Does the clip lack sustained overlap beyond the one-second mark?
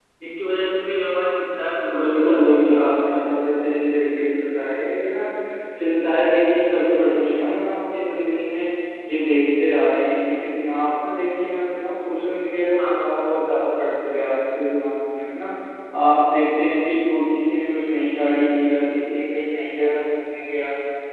No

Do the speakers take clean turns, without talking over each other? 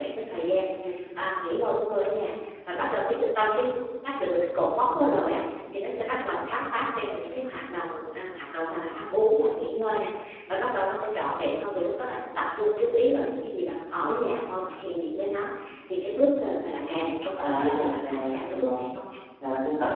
No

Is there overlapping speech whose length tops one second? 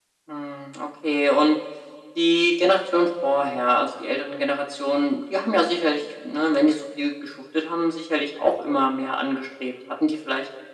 No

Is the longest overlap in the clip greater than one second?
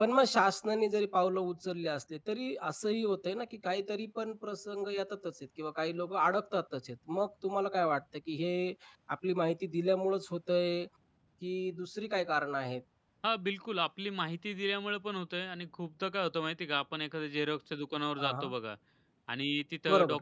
No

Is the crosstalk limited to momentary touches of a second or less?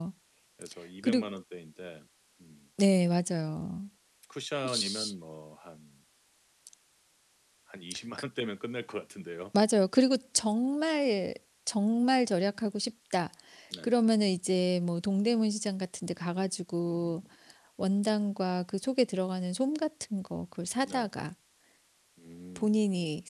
Yes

